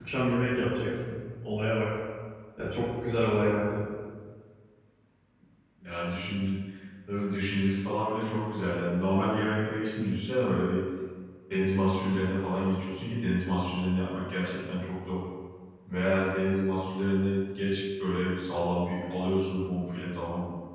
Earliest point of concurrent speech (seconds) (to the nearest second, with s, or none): none